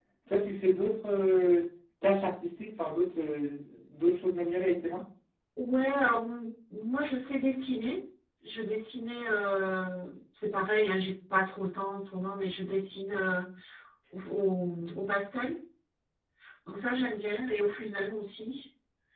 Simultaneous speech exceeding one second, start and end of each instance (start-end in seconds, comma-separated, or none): none